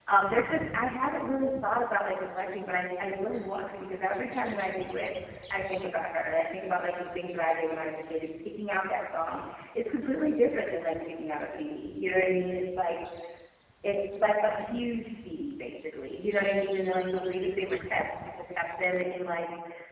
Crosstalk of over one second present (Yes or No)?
No